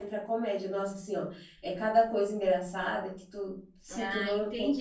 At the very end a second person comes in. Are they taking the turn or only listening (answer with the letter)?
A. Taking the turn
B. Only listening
A